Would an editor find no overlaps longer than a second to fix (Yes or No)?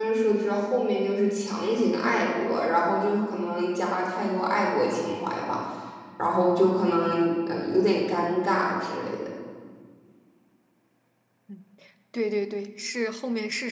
Yes